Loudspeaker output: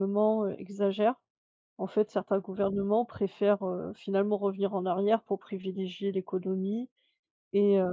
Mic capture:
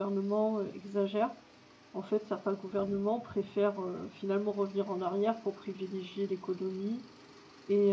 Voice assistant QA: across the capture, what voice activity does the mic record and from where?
echo only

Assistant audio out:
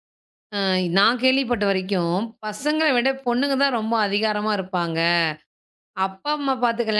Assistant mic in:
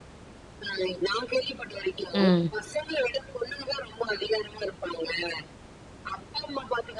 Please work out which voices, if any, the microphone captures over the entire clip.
both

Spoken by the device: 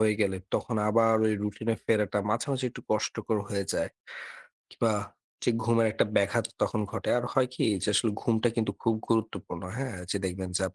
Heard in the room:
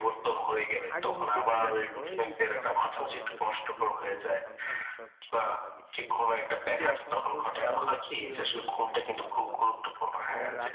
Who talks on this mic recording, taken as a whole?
both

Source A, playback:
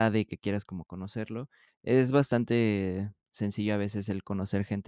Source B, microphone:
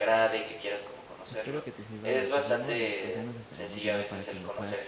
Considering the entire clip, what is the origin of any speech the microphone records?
both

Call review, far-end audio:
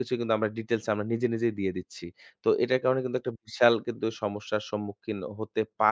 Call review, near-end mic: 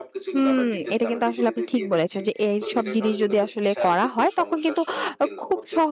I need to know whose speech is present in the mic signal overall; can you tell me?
both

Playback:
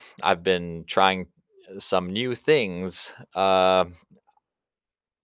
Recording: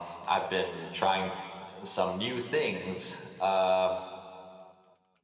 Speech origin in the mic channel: echo only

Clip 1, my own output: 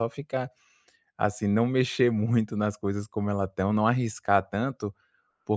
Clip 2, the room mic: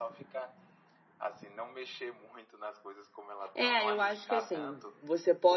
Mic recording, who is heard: both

